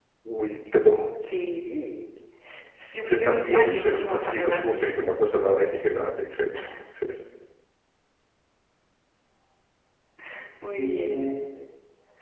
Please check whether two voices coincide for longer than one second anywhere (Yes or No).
Yes